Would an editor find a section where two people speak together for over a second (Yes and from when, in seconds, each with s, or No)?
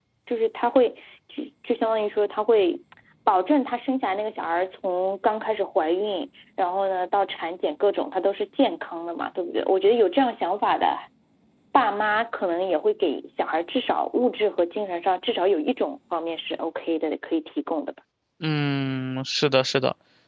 No